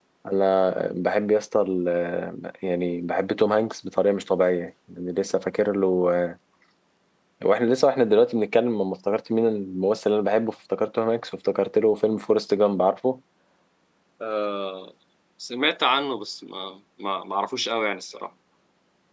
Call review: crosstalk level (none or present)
none